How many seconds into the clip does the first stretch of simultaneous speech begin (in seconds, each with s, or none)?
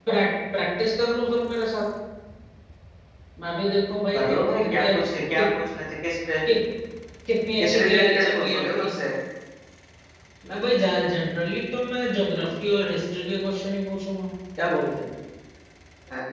4.1 s